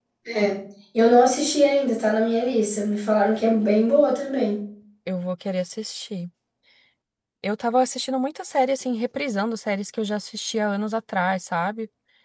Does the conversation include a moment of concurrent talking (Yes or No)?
No